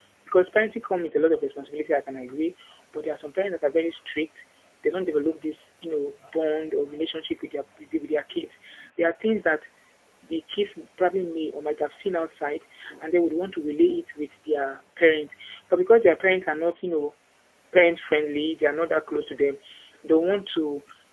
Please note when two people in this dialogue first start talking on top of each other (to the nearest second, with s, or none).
none